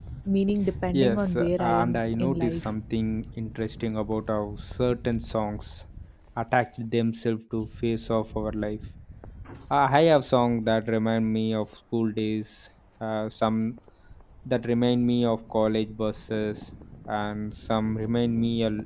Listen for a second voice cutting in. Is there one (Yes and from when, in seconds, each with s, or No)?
Yes, from 0.9 s